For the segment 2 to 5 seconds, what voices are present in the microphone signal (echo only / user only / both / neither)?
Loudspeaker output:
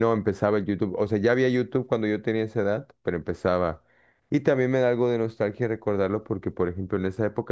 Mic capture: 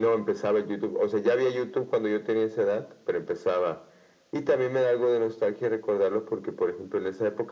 echo only